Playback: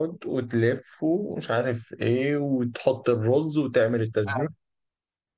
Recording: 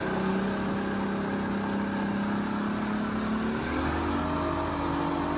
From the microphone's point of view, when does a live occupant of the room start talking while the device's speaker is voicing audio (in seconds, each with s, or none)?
none